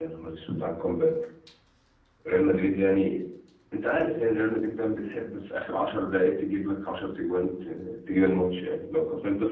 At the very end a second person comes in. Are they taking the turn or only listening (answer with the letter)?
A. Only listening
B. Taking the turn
A